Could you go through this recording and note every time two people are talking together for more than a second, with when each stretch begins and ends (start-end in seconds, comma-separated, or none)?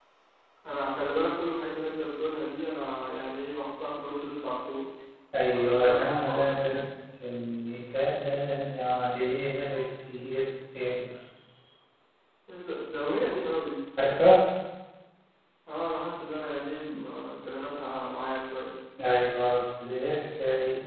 5.5-6.8